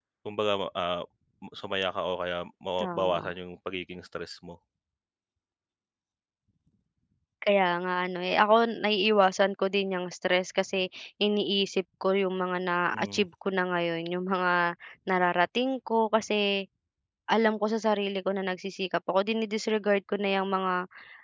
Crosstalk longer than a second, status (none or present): none